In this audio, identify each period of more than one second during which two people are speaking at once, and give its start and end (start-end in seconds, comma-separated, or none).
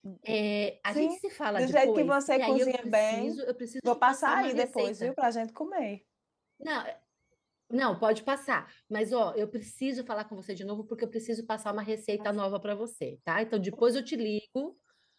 1.6-3.4, 3.8-5.1